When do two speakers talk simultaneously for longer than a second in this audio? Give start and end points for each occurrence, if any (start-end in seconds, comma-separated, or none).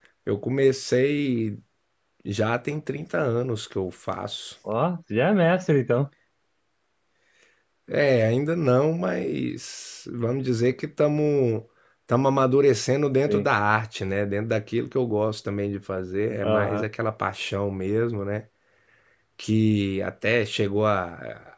none